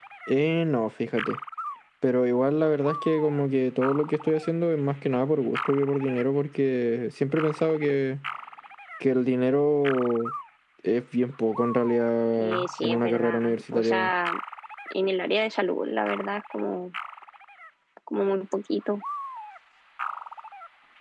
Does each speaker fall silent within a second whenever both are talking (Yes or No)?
No